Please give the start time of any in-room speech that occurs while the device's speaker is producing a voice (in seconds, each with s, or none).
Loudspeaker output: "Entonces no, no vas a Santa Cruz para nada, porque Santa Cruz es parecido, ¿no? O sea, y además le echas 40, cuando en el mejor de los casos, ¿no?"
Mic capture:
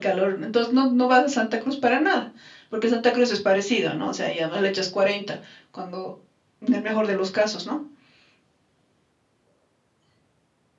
none